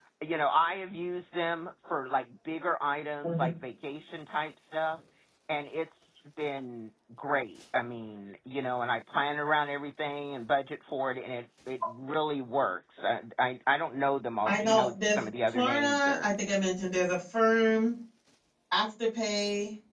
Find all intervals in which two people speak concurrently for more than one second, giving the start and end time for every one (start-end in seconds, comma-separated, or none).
14.4-16.3